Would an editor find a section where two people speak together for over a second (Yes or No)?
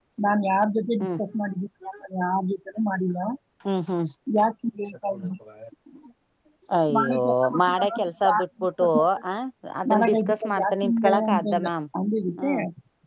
Yes